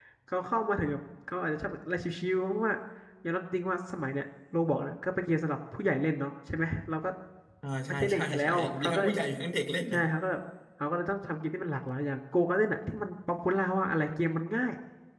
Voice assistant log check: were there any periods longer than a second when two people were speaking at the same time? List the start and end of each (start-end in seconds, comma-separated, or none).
7.9-9.1